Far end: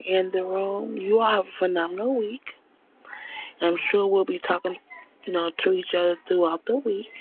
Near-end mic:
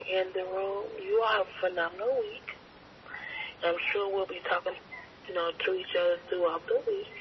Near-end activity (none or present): none